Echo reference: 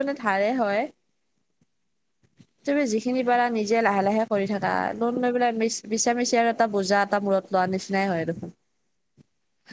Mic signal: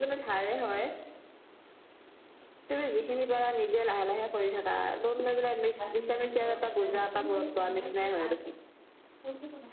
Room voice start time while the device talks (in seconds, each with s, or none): 5.8 s